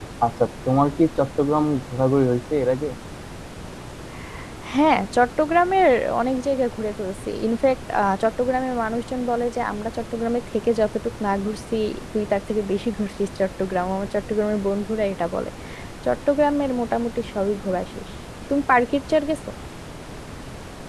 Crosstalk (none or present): none